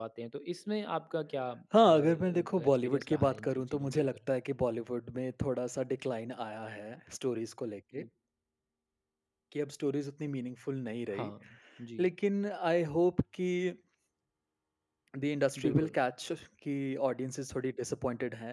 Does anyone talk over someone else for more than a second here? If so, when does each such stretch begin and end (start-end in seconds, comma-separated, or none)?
1.8-4.2